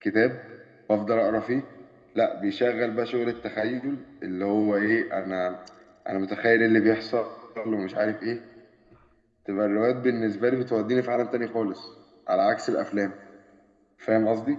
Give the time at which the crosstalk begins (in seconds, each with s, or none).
none